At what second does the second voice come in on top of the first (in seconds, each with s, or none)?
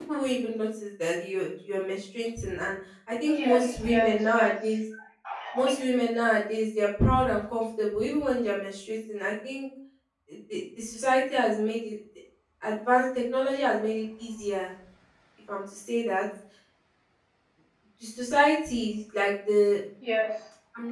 3.3 s